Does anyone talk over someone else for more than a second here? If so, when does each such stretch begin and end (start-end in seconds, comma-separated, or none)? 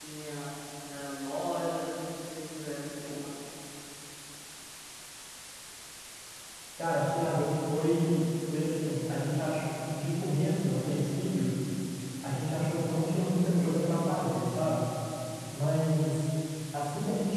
none